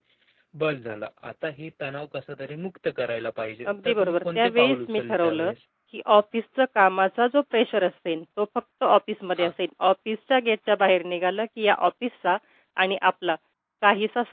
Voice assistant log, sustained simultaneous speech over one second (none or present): present